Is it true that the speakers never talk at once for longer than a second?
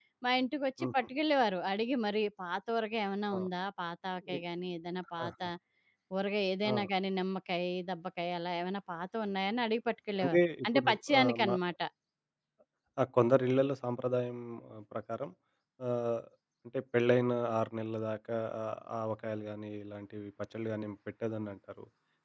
No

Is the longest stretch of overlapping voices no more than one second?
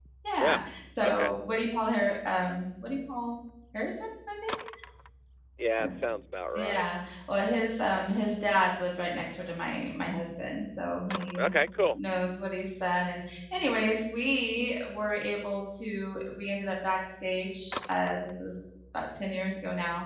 Yes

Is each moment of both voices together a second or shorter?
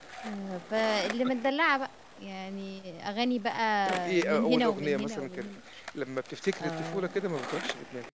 No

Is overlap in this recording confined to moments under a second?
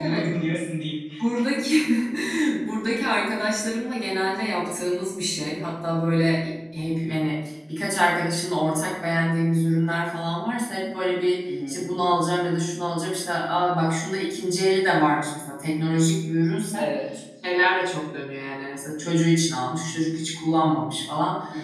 Yes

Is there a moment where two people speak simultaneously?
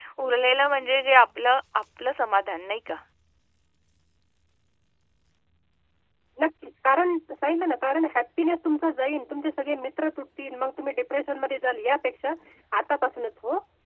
No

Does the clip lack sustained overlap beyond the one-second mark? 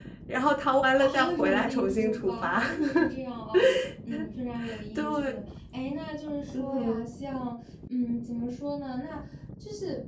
No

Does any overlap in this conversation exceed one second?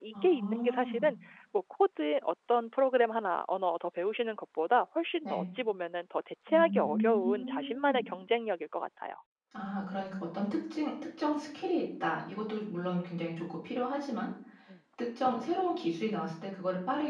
Yes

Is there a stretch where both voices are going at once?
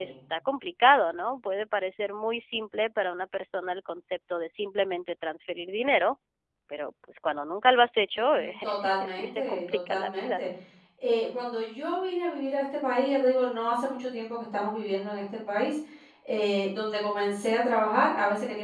Yes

